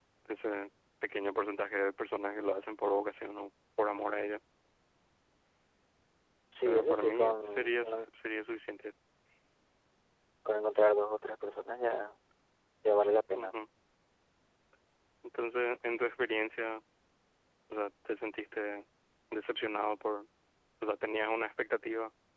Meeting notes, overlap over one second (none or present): present